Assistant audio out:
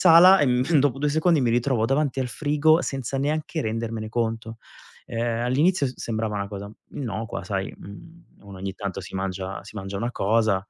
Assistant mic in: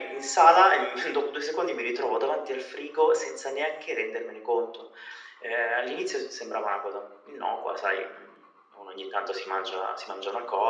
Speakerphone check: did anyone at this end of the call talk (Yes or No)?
No